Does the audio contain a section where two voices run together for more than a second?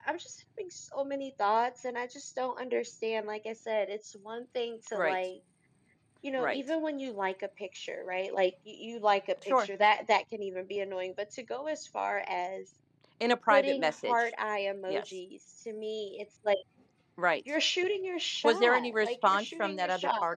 Yes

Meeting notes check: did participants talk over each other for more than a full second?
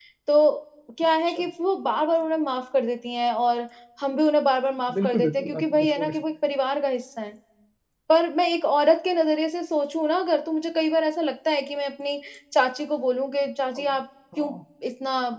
Yes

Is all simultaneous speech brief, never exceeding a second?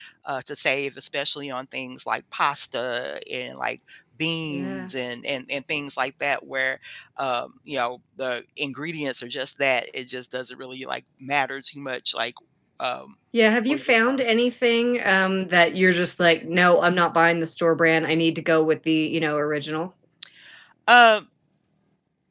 Yes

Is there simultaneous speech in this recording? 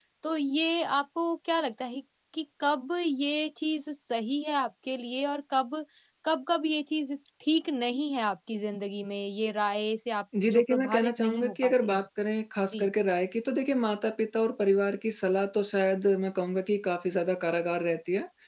Yes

